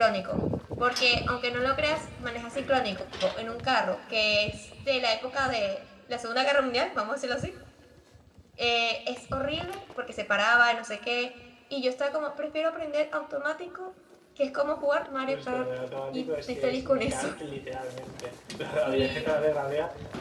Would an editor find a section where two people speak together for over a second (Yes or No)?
Yes